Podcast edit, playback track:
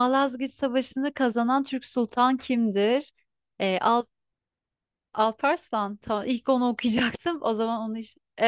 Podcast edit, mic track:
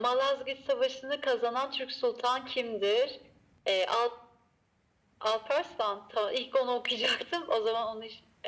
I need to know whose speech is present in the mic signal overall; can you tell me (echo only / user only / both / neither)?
echo only